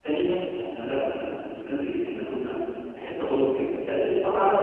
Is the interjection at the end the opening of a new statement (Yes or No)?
No